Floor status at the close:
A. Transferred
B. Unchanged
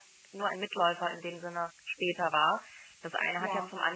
B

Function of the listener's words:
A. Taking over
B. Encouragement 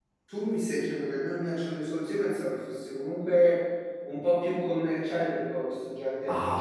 A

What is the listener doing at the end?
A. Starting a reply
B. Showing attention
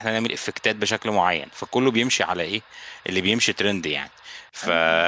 B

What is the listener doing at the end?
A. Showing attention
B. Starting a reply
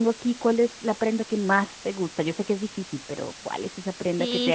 B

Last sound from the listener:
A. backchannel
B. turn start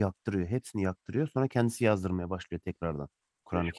B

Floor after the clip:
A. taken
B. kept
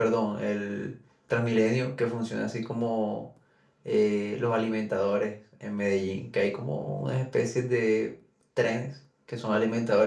B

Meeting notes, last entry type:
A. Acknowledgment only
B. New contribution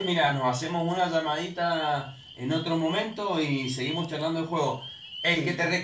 A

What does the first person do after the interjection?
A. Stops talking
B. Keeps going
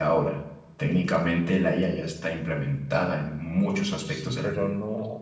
A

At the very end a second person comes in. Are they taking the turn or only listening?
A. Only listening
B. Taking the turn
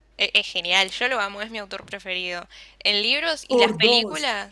A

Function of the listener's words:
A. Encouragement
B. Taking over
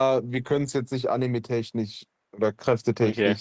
A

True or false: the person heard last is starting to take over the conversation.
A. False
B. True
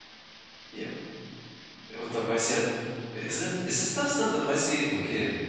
B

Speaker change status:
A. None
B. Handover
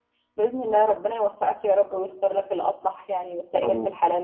B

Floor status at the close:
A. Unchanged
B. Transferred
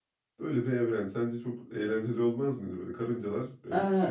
A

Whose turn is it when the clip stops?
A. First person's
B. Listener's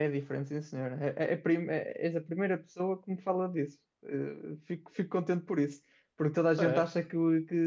A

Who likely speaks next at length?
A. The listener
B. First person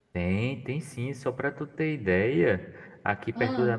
B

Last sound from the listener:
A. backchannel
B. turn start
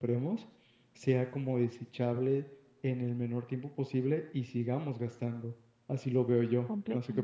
B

